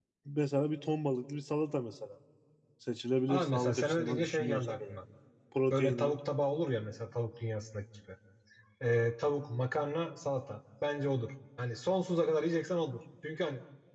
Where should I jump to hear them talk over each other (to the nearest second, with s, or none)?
3 s